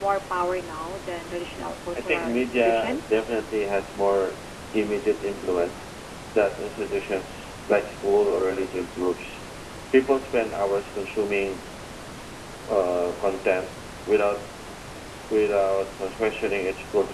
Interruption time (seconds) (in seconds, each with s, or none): 2.1 s